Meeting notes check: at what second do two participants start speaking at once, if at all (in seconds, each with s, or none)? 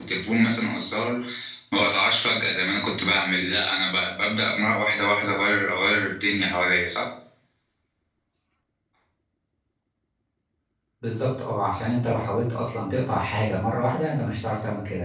none